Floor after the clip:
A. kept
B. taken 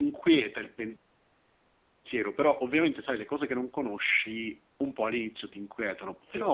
A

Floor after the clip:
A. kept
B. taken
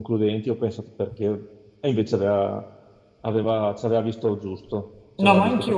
B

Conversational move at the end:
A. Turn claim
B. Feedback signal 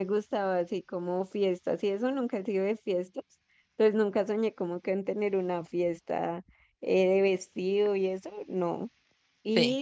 B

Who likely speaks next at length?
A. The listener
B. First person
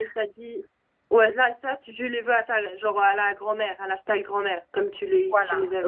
A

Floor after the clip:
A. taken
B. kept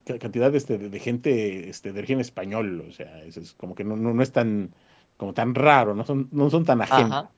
B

